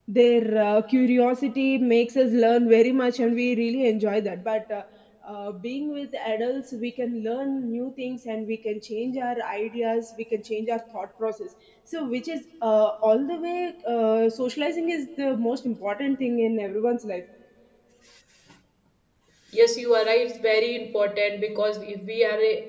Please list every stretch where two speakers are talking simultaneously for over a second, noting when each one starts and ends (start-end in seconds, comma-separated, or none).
none